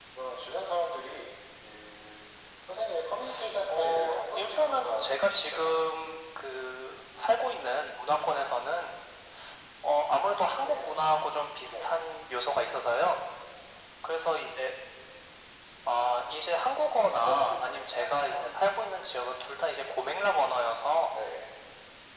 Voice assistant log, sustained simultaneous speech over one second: present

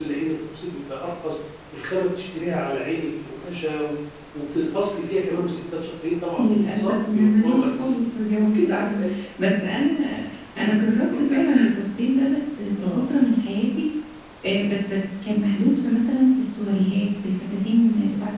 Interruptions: present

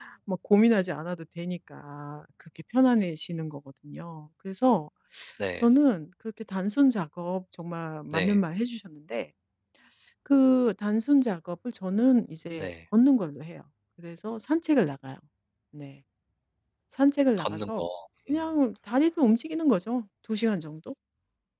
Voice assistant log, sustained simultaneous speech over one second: none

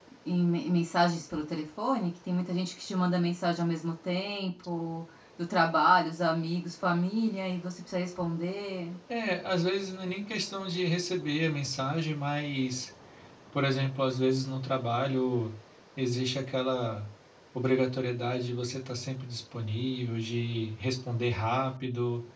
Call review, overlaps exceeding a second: none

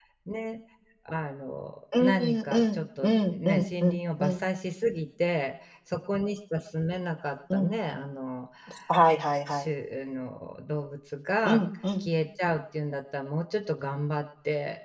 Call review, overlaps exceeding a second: present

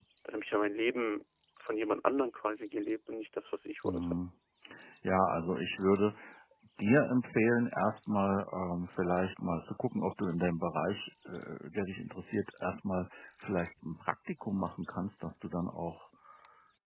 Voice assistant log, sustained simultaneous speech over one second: none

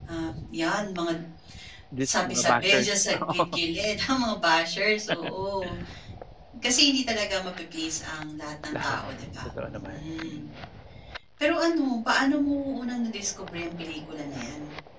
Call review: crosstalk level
present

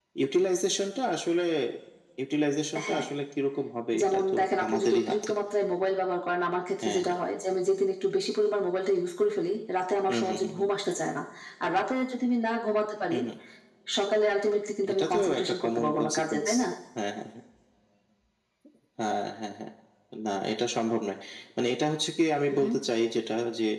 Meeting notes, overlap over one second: present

